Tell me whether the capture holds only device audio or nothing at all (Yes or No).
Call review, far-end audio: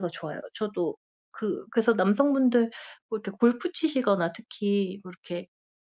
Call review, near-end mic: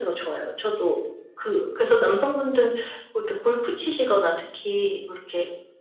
Yes